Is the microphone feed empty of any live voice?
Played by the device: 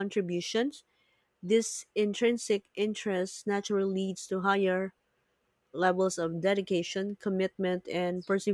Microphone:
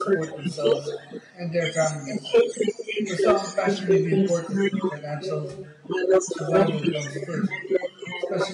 No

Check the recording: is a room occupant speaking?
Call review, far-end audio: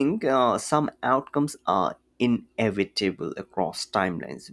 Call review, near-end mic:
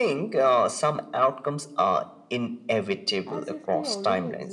Yes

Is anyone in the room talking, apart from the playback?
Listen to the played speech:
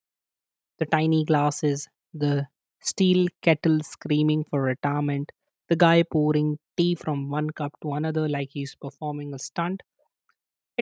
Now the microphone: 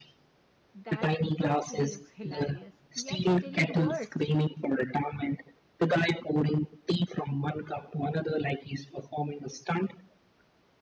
Yes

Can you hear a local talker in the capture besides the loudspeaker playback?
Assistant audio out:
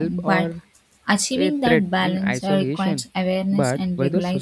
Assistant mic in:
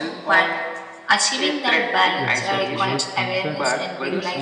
Yes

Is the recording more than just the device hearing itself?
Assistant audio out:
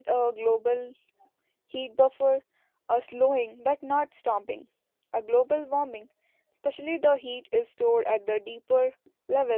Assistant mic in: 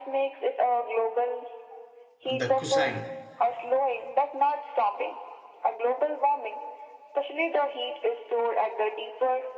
Yes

